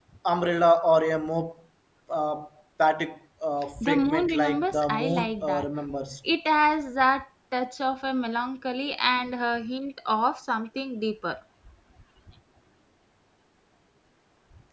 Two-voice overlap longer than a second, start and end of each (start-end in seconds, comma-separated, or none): 3.8-5.7